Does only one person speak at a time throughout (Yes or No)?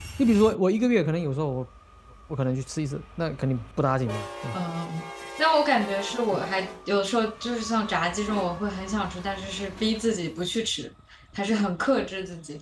Yes